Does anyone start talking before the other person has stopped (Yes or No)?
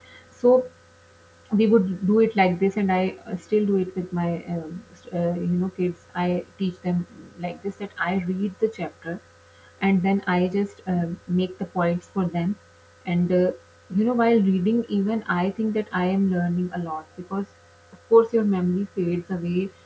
No